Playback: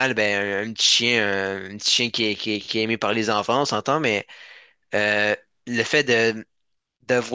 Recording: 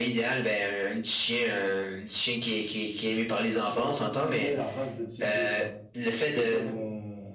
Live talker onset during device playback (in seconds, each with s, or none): 3.7 s